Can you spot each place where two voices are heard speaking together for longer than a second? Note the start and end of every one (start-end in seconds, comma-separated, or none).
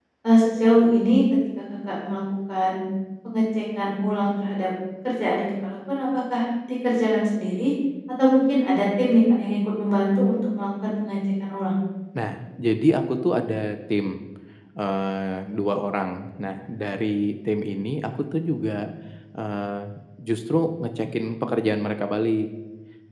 none